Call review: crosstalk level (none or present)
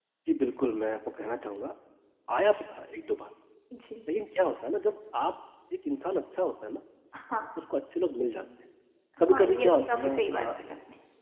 present